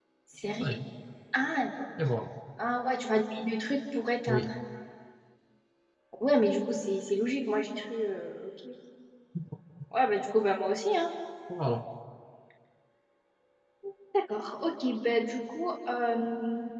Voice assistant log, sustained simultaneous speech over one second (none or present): none